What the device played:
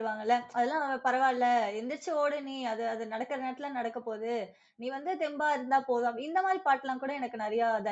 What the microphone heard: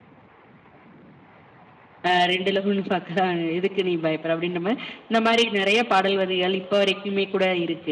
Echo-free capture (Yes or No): Yes